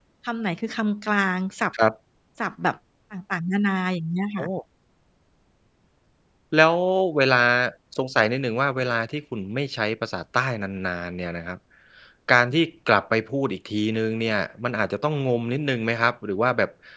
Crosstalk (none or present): none